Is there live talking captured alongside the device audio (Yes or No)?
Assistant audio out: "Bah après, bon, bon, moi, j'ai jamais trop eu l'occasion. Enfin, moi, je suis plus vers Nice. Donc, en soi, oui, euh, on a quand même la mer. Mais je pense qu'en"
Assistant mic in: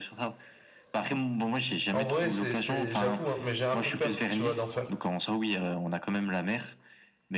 Yes